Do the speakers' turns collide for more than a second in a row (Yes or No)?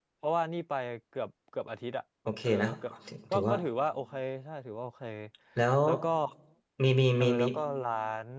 No